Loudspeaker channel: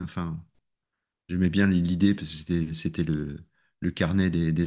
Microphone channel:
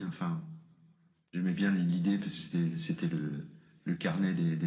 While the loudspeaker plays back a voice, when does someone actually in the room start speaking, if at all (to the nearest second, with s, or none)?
none